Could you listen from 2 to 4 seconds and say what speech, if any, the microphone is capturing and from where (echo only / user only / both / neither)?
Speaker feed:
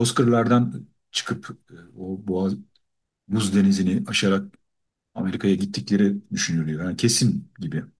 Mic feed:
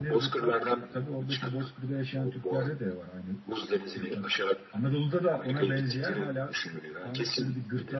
both